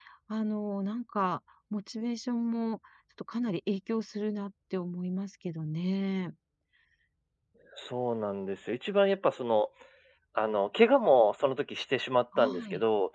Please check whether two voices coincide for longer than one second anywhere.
No

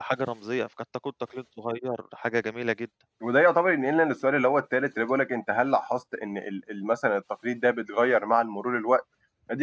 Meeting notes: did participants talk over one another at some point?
No

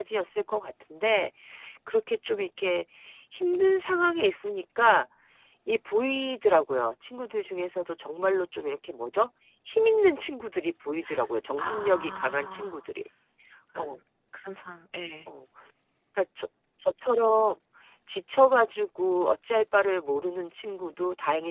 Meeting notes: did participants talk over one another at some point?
Yes, from 11.6 s

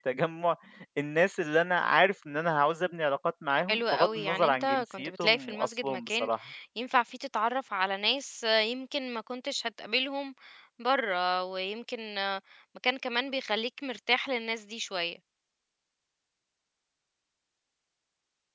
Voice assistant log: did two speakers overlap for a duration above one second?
Yes, from 3.7 s

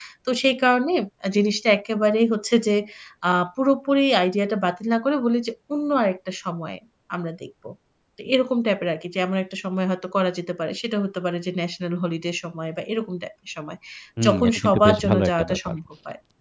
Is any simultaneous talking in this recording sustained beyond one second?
Yes, from 14.2 s

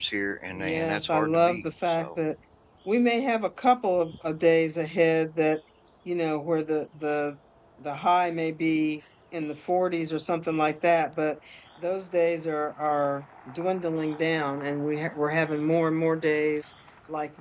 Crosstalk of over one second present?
Yes, from 0.5 s

